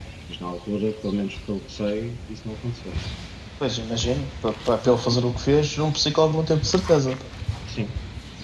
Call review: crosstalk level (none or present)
none